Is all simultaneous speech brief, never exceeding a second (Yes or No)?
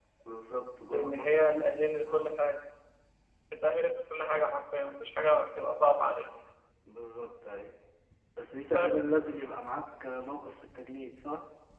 No